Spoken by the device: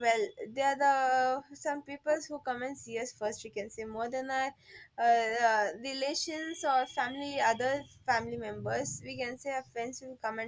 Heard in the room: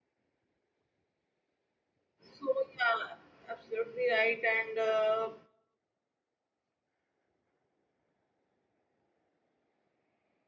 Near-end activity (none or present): present